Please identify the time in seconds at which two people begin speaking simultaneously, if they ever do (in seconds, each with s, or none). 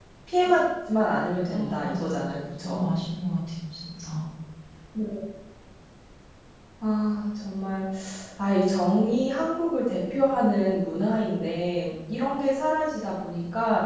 1.5 s